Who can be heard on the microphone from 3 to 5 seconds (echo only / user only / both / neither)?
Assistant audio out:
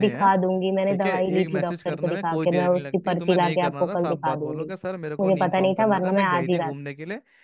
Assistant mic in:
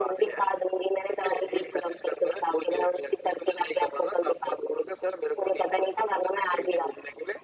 echo only